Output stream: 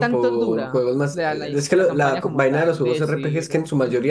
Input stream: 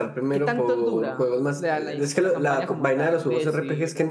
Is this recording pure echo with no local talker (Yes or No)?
Yes